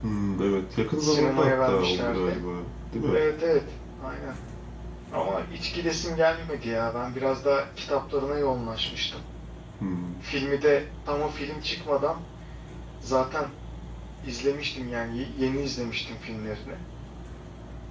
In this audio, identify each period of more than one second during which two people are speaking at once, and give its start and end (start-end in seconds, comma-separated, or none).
1.0-2.4